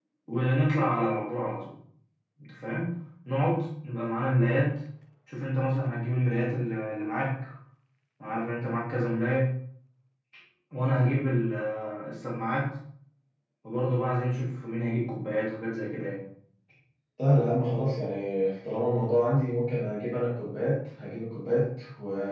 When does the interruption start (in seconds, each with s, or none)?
none